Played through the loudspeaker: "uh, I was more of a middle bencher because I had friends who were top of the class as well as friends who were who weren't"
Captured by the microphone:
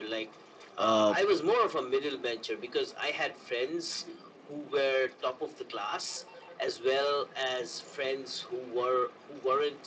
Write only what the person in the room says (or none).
uh